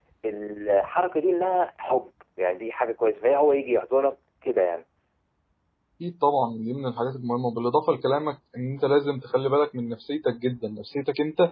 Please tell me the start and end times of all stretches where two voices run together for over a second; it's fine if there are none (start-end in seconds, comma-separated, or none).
none